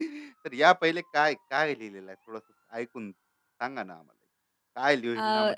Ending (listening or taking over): listening